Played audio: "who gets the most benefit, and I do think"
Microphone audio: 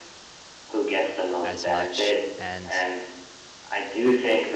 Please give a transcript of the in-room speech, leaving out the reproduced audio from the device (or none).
as much. And